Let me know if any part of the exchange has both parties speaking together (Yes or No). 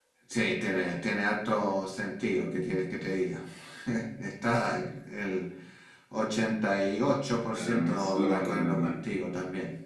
Yes